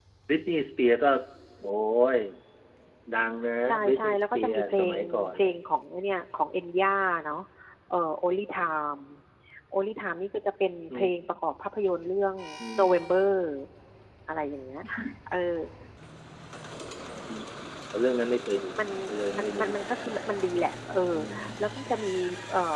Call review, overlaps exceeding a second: present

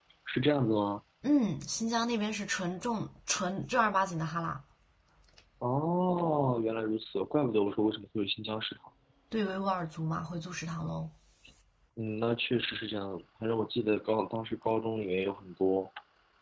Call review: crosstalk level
none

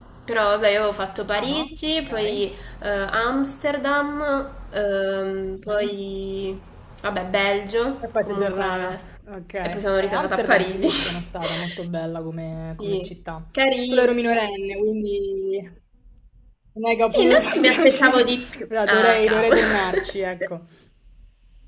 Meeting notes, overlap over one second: present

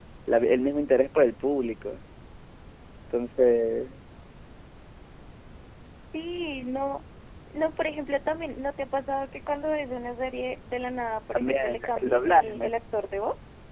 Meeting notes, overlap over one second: present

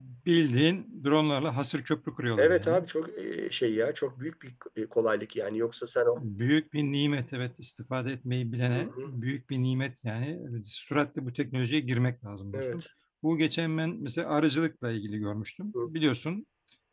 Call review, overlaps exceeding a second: none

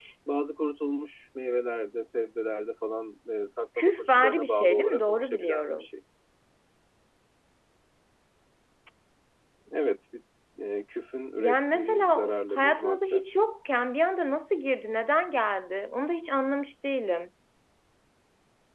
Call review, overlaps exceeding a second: present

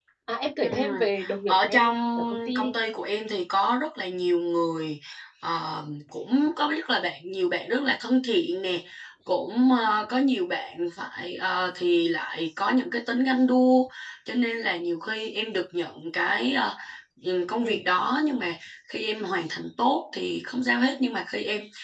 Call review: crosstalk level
present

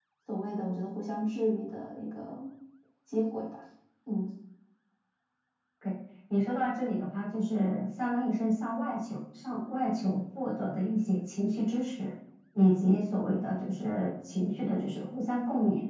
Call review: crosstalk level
none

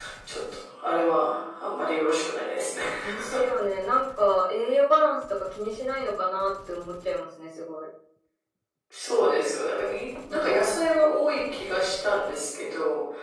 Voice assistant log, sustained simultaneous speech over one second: none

